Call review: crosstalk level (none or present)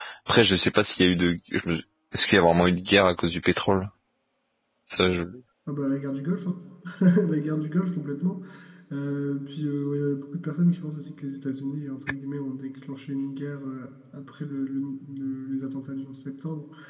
none